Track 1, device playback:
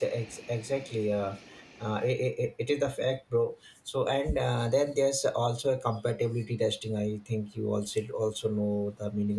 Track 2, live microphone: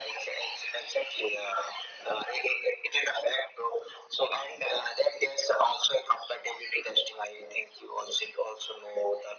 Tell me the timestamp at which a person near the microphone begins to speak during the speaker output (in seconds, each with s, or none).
none